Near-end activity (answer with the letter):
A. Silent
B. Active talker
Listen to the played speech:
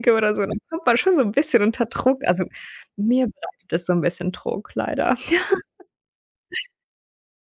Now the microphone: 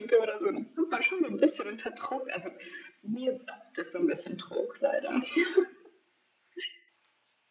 A